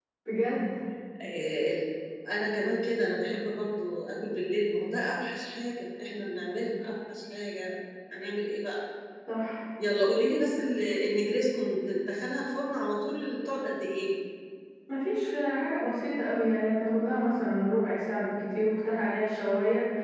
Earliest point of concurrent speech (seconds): none

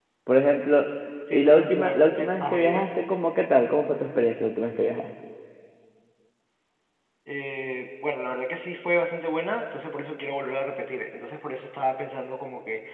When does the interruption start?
1.3 s

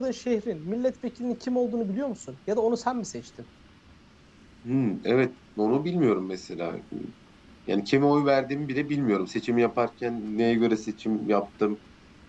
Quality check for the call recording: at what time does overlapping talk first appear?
none

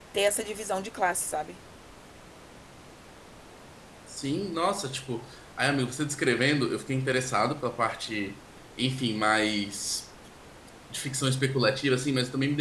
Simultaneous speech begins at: none

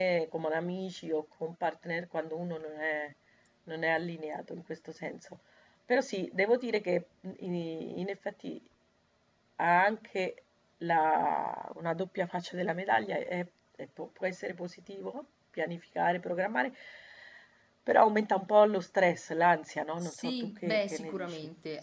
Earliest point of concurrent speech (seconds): 20.0 s

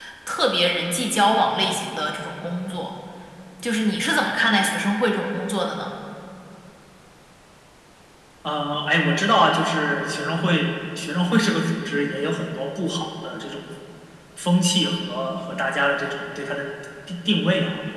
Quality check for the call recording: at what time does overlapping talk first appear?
none

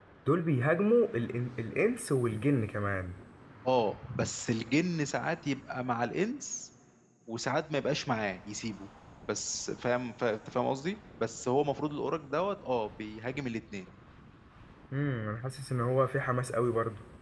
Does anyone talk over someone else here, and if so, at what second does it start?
none

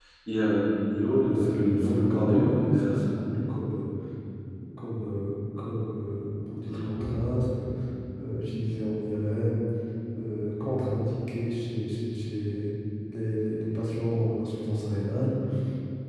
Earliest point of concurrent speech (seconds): 1.2 s

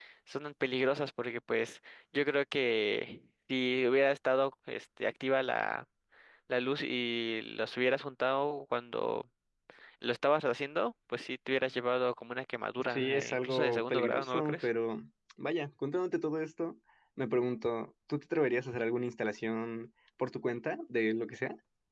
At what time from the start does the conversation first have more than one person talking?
12.8 s

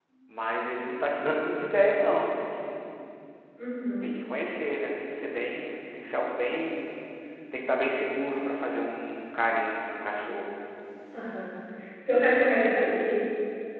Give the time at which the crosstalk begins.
none

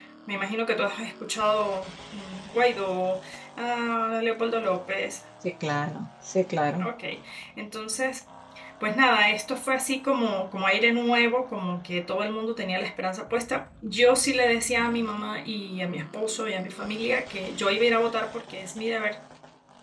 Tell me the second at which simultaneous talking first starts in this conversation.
none

